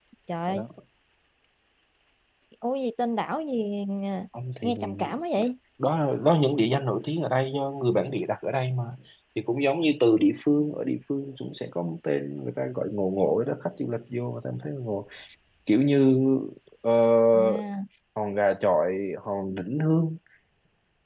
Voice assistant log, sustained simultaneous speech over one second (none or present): none